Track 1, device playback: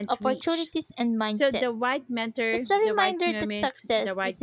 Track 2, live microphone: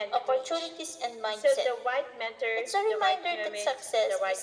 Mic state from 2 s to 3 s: echo only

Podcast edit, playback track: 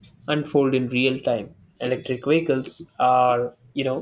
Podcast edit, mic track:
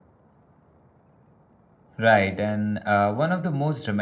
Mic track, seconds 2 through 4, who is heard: user only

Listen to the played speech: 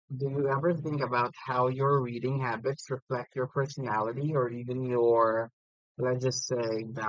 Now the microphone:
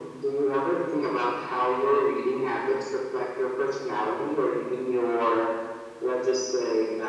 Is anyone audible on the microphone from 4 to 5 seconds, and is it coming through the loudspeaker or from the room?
echo only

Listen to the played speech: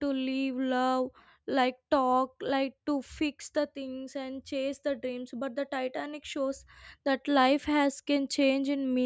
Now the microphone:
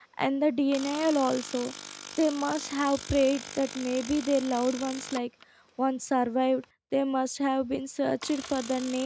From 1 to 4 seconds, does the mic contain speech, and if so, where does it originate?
user only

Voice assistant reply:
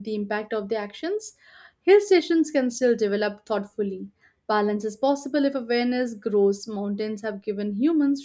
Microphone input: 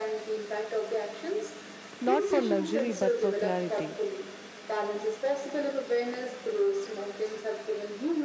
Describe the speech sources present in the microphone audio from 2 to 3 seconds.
both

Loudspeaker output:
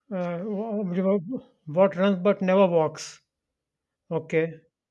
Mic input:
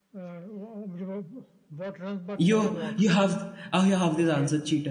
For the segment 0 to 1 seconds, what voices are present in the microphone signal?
echo only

